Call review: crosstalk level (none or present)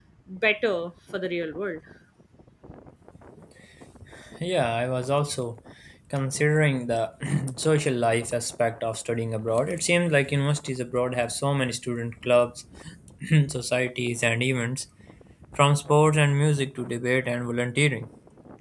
none